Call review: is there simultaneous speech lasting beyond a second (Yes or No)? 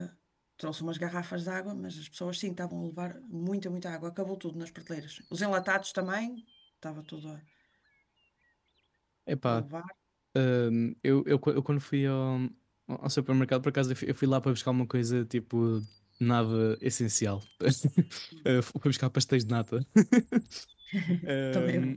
No